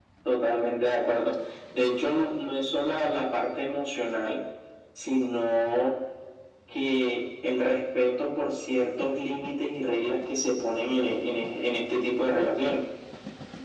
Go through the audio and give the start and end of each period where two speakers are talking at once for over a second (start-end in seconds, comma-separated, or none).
none